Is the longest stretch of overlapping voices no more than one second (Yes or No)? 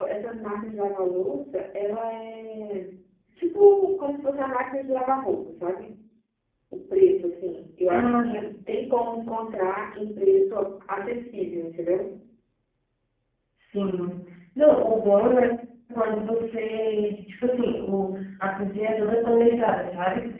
Yes